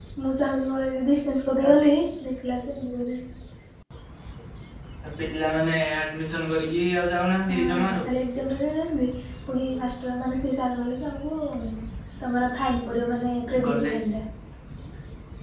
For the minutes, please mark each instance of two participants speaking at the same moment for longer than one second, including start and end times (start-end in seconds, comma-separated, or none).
none